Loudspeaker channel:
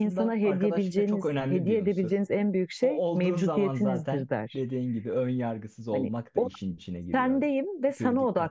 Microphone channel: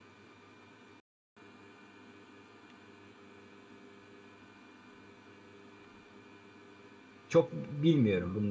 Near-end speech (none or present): present